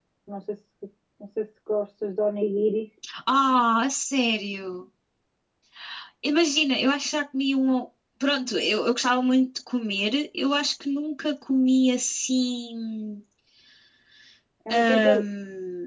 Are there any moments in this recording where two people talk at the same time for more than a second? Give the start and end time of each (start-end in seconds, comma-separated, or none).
none